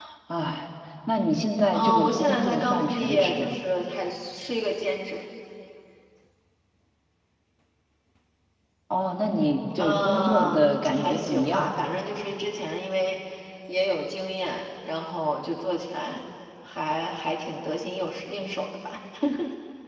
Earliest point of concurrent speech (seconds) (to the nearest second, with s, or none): 2 s